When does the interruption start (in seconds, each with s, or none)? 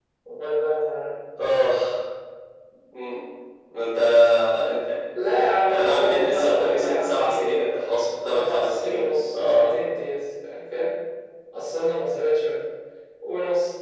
5.7 s